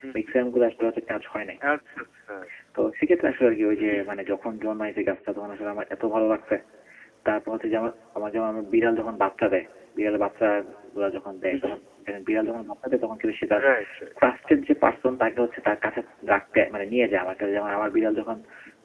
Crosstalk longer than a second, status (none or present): none